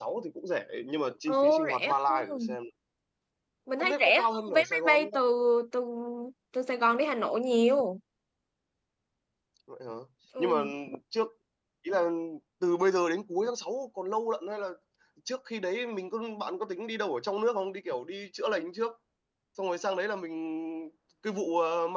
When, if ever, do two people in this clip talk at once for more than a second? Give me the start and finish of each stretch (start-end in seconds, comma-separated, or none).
1.3-2.6, 3.8-5.0